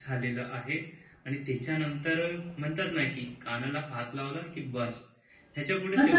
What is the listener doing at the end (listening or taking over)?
taking over